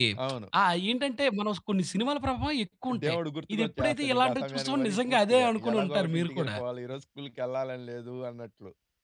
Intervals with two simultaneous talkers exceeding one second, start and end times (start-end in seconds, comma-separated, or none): 3.5-6.6